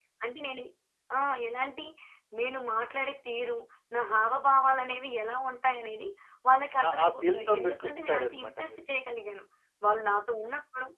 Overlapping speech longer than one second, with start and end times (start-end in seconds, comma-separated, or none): 6.8-8.8